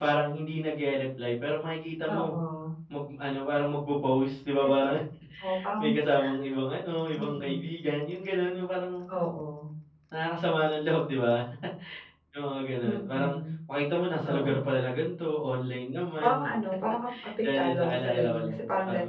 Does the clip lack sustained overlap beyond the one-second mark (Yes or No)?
No